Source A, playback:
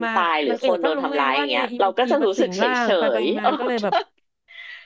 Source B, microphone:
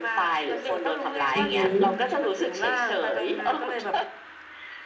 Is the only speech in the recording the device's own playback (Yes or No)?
No